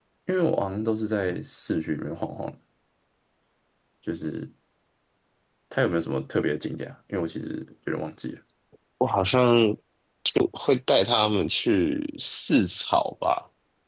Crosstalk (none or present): none